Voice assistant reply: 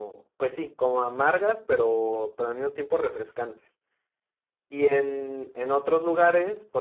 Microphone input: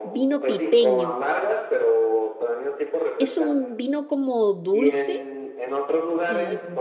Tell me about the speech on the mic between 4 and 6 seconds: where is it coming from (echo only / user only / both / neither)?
both